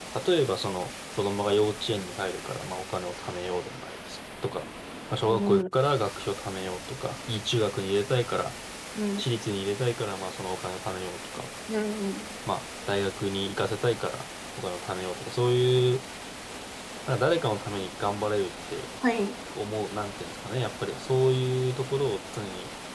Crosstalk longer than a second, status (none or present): none